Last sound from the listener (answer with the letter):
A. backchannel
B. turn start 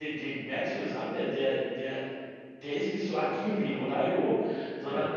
A